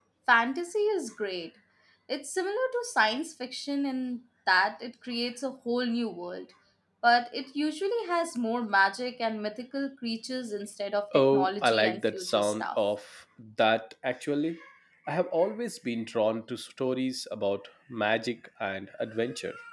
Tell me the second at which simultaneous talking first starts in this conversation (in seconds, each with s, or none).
11.1 s